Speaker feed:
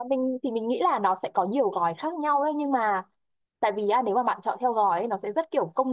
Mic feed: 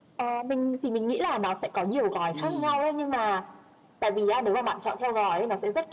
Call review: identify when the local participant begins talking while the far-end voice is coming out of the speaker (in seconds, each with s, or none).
2.3 s